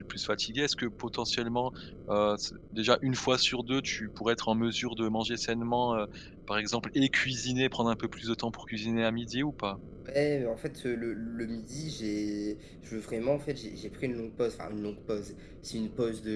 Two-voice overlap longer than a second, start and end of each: none

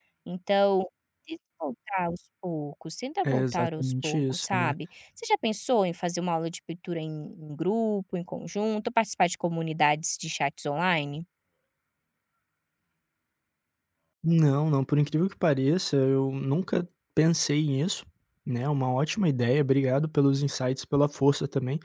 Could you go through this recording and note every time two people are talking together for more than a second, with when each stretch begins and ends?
3.2-4.7

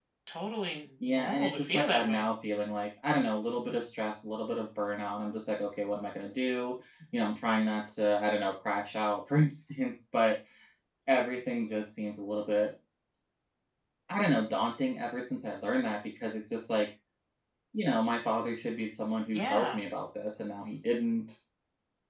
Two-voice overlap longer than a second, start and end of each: 1.0-2.3

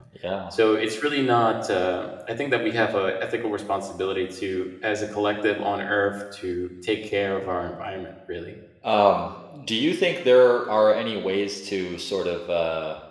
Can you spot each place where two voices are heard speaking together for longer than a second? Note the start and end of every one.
none

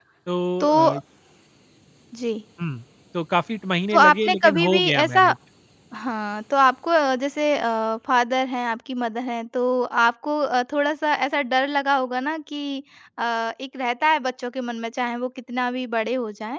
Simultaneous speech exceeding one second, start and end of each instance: 3.9-5.3

